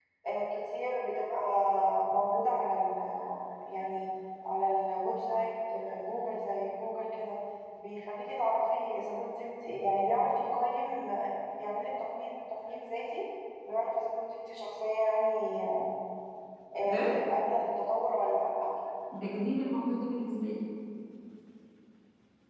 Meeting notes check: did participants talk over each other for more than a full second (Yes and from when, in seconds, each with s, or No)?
No